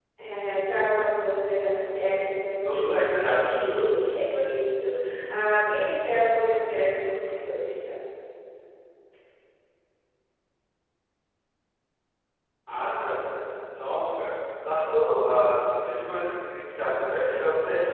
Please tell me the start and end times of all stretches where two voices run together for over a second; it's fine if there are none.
2.6-4.1

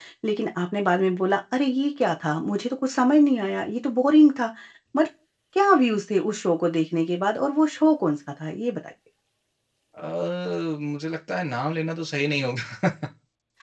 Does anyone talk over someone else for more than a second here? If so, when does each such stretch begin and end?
none

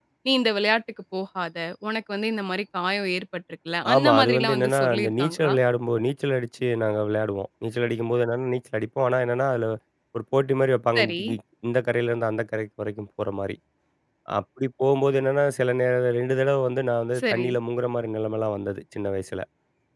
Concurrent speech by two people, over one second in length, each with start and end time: 3.9-5.5

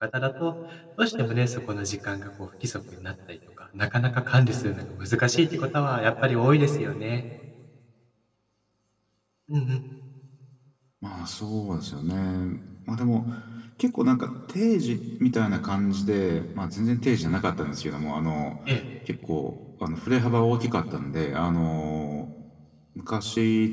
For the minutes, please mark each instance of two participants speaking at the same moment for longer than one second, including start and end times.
none

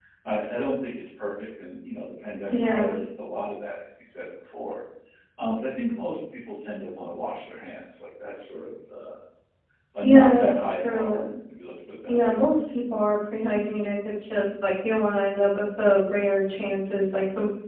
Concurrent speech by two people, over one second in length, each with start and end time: 10.0-11.3

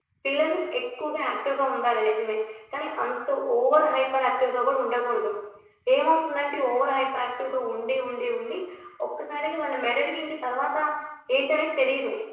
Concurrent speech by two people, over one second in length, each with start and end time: none

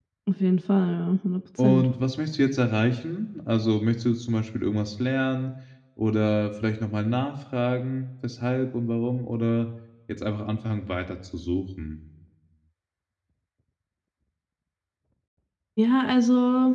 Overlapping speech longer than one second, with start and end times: none

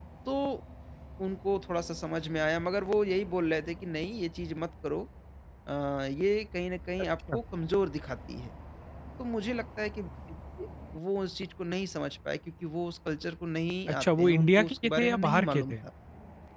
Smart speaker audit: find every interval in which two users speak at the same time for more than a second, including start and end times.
13.9-15.8

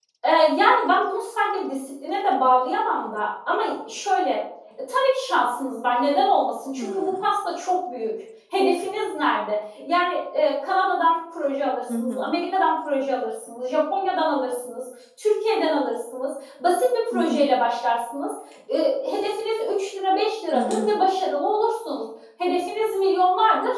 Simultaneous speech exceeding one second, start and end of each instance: none

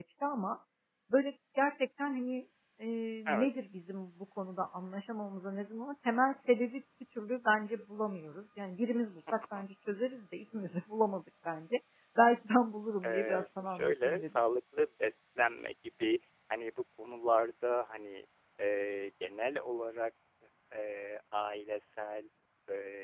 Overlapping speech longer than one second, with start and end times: 13.0-14.4

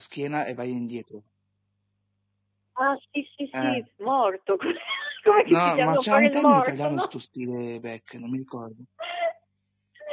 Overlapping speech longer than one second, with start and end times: 5.5-7.1

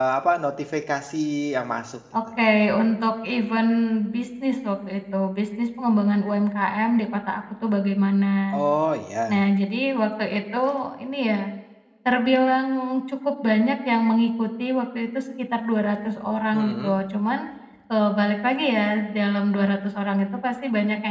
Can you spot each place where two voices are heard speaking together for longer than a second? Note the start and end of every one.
none

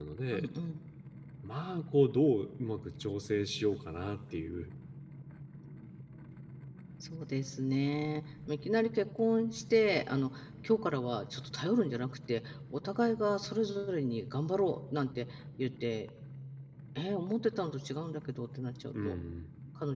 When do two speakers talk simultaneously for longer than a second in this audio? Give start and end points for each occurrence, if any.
none

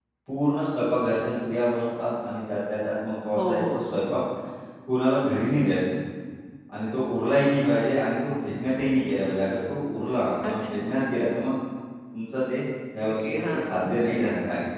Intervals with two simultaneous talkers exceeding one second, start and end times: 13.0-14.2

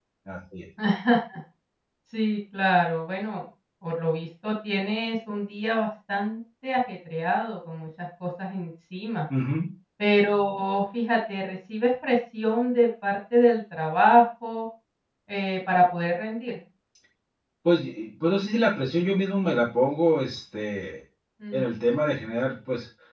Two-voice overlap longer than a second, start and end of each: none

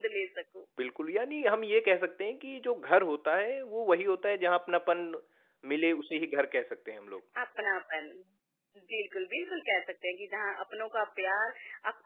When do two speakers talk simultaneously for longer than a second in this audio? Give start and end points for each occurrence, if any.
none

